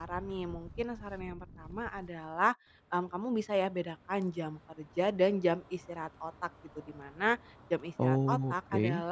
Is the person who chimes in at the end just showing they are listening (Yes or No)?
Yes